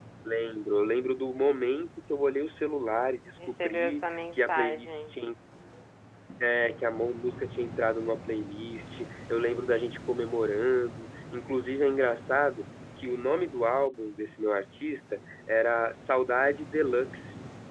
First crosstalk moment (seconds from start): 3.4 s

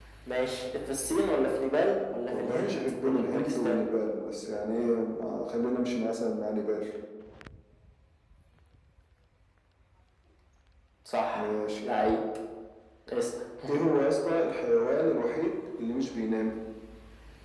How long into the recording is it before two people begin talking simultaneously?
2.3 s

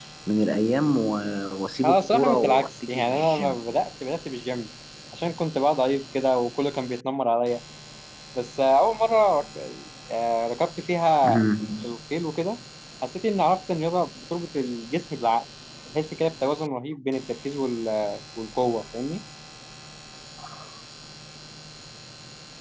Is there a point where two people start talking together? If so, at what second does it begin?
1.8 s

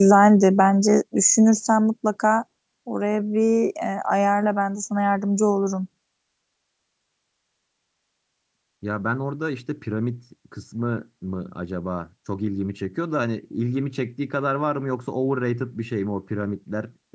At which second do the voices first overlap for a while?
none

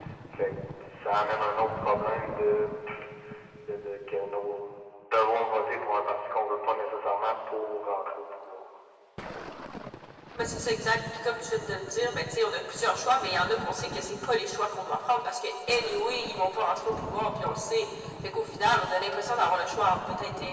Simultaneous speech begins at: none

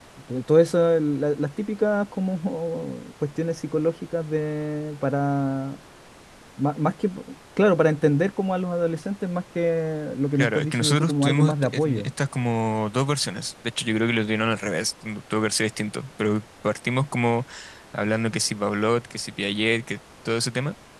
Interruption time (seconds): 10.3 s

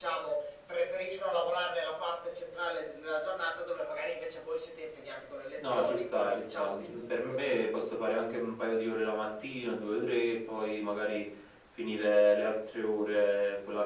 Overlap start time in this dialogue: 5.6 s

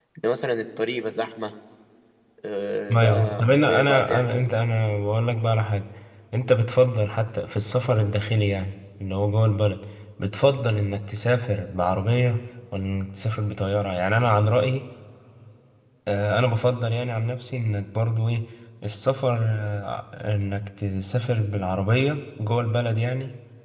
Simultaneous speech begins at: 3.0 s

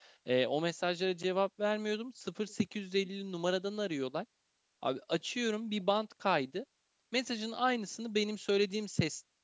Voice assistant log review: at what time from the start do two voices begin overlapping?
none

